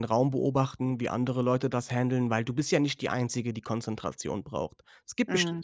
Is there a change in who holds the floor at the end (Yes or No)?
No